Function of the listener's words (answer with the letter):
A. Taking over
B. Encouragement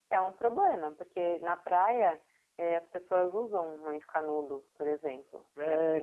A